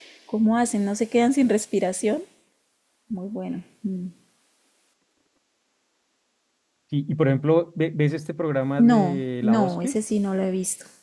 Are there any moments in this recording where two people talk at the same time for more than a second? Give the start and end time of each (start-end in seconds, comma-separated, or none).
8.8-10.0